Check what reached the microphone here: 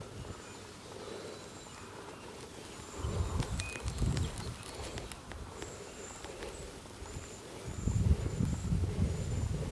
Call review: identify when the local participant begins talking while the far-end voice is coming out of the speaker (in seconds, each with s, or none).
none